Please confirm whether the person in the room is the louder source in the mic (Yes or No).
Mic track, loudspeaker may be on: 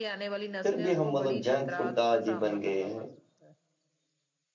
Yes